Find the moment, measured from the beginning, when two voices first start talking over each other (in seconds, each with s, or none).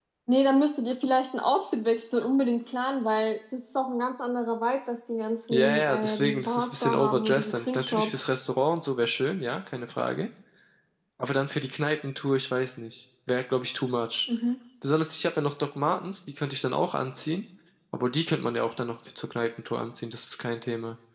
5.5 s